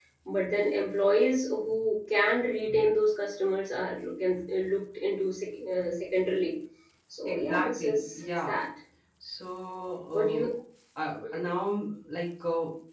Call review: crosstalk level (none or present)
present